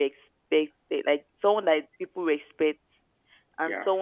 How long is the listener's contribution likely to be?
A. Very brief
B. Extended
A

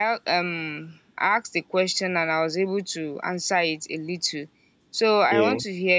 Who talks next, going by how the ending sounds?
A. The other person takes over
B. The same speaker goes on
B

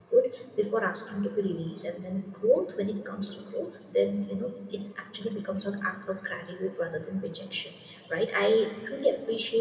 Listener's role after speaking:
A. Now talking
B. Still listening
B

